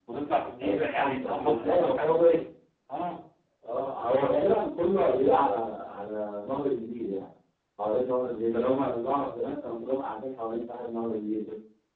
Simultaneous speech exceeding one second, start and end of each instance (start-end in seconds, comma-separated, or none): 0.6-2.4